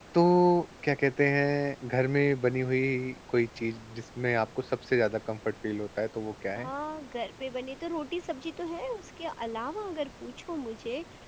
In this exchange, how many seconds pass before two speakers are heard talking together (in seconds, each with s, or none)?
none